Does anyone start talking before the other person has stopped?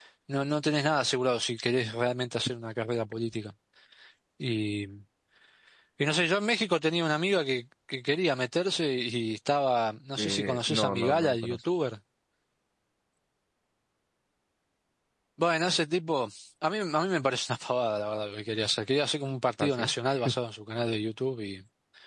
Yes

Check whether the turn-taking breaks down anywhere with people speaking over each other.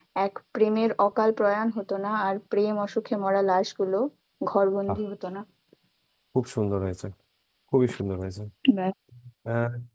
No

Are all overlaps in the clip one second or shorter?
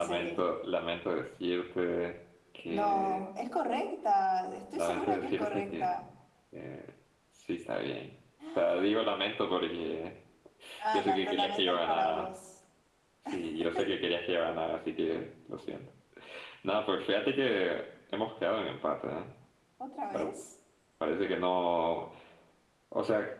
No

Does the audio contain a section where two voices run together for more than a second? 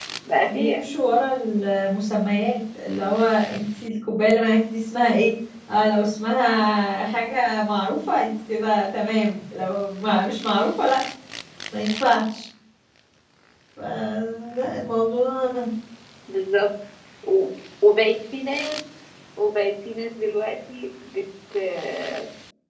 No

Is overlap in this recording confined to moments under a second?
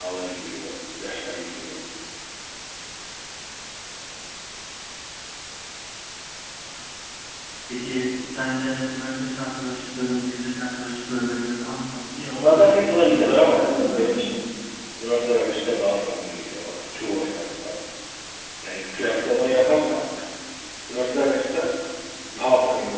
No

